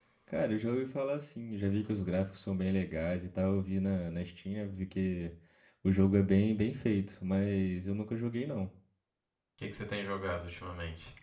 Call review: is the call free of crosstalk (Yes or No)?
Yes